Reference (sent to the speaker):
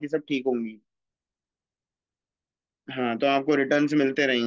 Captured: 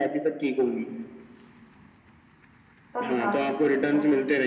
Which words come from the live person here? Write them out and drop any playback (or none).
सब निकाल सकते हैं